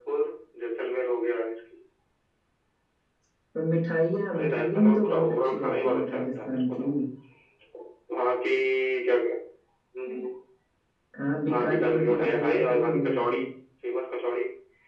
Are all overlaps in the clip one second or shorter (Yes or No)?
No